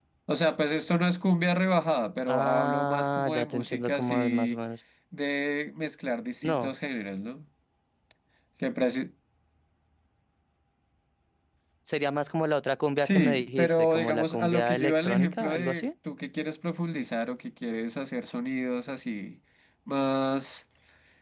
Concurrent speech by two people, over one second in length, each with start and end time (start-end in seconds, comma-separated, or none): 2.3-4.6, 13.0-15.9